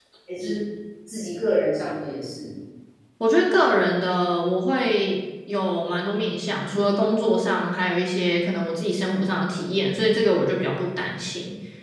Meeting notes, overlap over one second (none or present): none